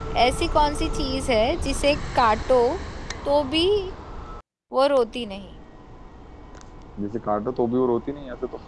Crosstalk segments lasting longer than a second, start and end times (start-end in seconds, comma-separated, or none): none